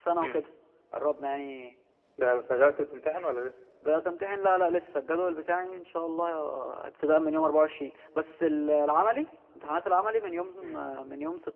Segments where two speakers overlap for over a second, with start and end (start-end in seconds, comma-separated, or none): none